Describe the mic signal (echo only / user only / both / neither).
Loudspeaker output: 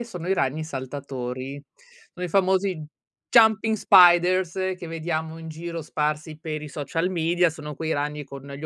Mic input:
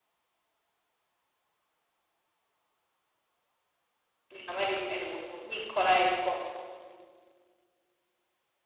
user only